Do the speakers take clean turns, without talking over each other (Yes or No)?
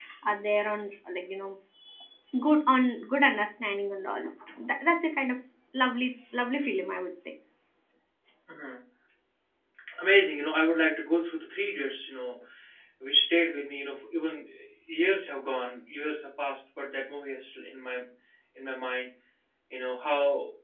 Yes